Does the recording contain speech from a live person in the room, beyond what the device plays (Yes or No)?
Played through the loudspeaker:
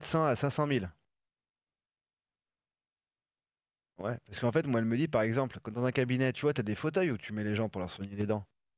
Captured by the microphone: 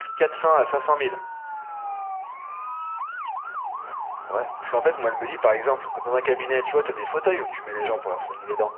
No